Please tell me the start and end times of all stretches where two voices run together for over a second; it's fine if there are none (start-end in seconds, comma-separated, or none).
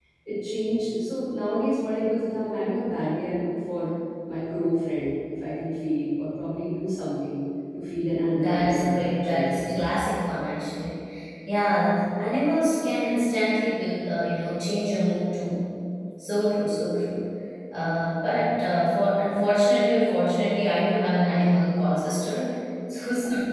8.3-9.9